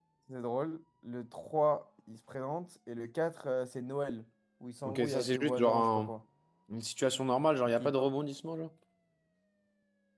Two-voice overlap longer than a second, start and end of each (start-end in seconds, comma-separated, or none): 4.8-6.1